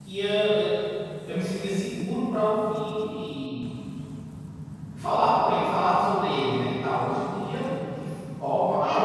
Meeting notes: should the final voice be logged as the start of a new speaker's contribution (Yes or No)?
Yes